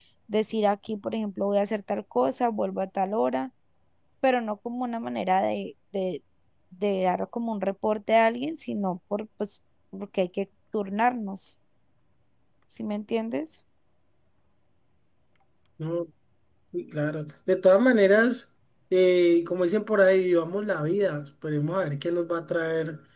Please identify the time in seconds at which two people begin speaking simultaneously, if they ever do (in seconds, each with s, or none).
none